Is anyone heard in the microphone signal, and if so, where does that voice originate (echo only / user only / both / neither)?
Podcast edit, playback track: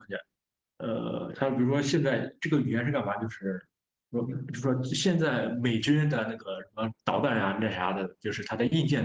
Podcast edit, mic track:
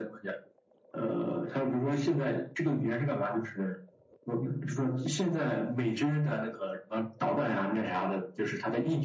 echo only